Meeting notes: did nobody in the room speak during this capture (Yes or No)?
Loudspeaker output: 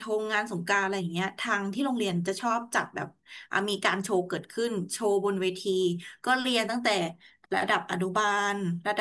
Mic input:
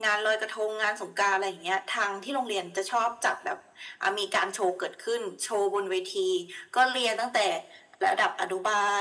Yes